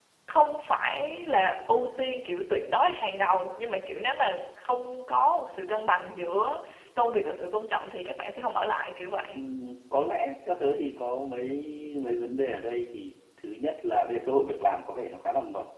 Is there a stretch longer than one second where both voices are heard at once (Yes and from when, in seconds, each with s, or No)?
No